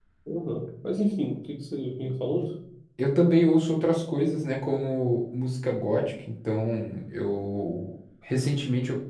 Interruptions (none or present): none